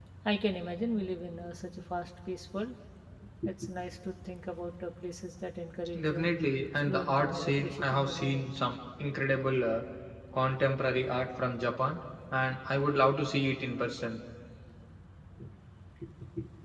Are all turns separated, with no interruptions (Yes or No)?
No